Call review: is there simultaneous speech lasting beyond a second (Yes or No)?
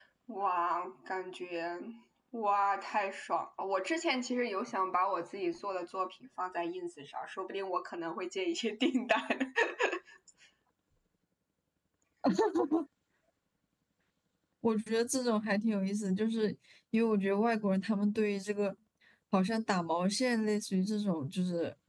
No